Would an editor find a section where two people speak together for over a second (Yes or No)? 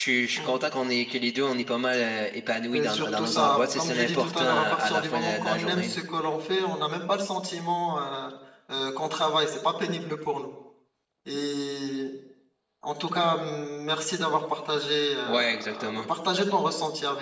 Yes